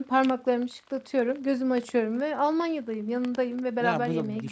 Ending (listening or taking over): taking over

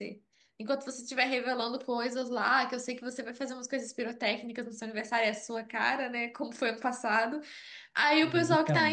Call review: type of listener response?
listening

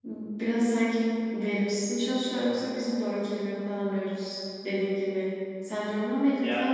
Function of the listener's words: listening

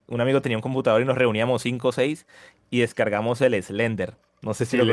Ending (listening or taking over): taking over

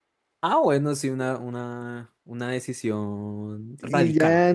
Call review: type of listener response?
taking over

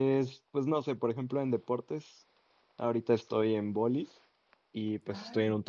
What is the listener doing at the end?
listening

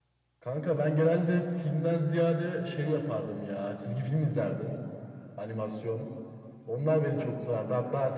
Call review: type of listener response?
listening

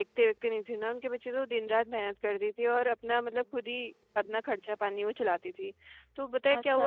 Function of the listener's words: listening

